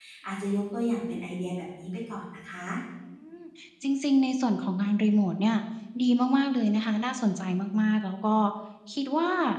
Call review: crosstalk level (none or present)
none